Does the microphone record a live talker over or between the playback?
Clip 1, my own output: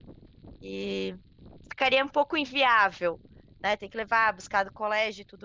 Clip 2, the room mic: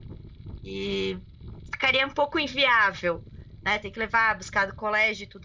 No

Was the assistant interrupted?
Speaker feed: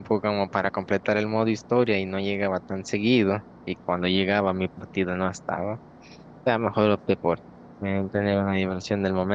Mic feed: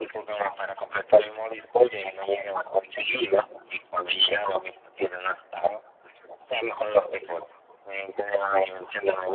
No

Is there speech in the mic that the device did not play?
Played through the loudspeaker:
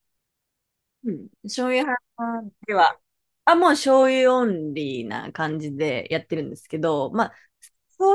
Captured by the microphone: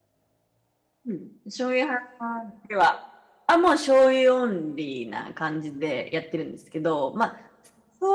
No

